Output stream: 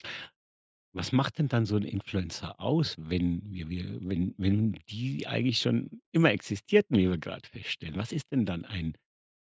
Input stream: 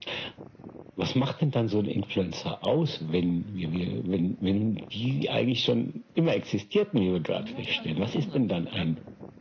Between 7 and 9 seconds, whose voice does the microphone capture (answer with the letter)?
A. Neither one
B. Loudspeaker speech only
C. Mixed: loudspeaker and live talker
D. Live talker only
C